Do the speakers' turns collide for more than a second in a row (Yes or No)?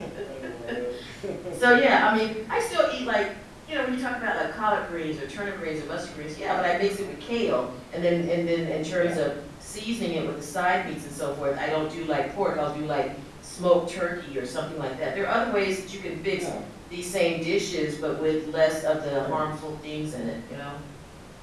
No